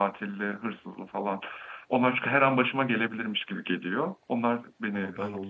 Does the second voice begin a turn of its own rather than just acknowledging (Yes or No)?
Yes